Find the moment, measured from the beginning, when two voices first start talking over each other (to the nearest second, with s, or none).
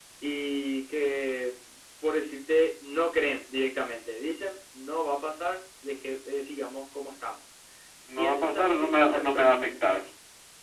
8 s